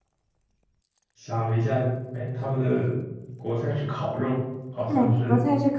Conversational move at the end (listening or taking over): taking over